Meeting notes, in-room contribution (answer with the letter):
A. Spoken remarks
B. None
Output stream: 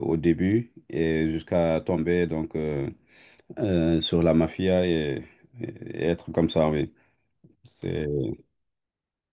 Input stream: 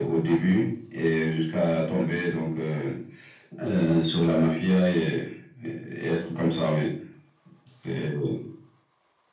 B